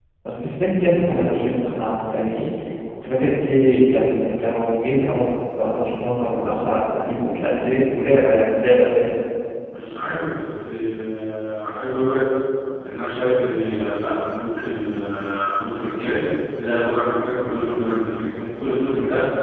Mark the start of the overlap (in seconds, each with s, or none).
none